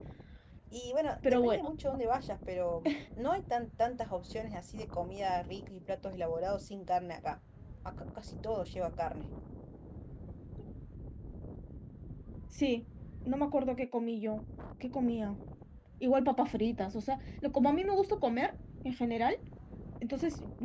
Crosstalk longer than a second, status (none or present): none